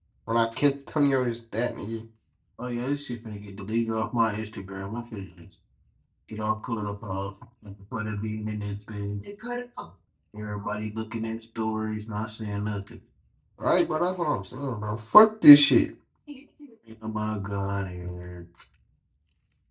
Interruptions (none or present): none